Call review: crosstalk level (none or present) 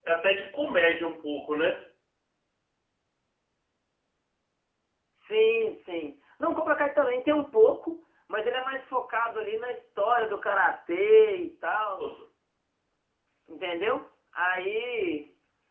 none